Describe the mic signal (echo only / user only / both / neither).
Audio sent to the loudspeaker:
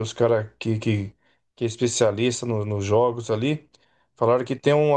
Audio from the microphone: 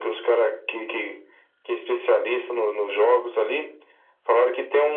echo only